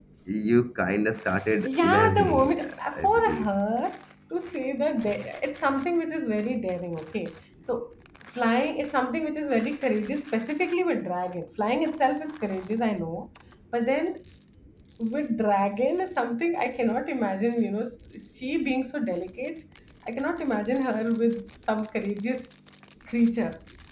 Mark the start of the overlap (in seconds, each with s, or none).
1.6 s